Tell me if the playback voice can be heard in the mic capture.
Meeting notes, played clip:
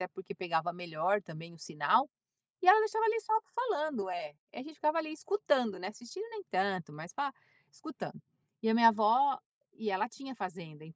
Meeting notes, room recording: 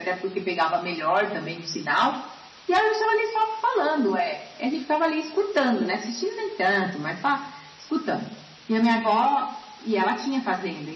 Yes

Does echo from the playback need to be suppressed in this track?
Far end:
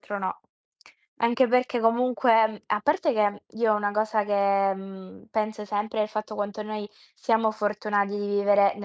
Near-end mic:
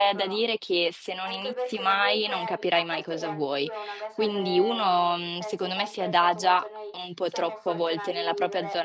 Yes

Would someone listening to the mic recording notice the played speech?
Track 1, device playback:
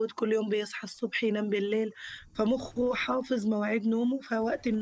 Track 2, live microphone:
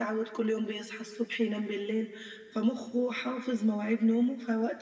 Yes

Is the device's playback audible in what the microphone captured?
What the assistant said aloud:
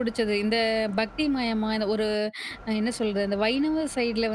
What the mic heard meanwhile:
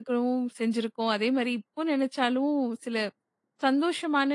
No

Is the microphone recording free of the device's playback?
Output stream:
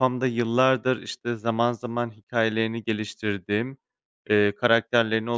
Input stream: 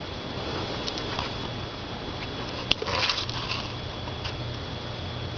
Yes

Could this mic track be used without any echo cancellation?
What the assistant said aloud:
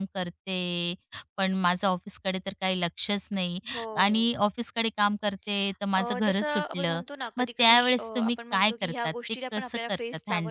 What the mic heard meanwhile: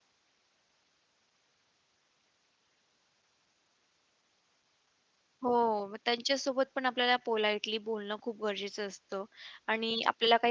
Yes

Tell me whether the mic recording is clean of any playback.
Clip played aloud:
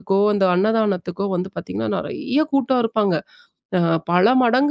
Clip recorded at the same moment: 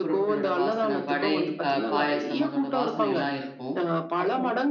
No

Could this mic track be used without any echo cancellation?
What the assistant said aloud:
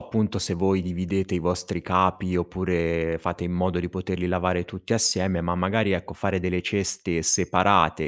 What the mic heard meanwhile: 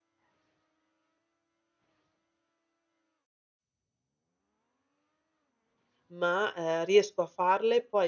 Yes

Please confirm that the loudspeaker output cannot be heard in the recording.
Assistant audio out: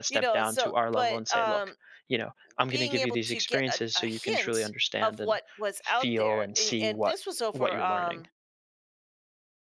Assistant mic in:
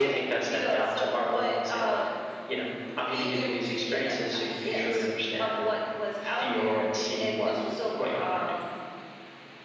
No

